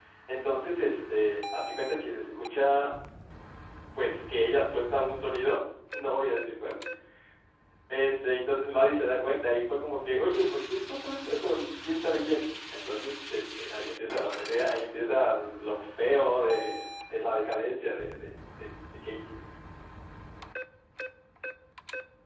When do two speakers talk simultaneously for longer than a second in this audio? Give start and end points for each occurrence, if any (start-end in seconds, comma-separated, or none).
none